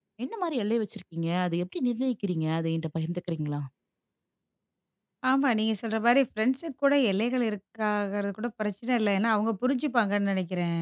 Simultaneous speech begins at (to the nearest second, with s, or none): none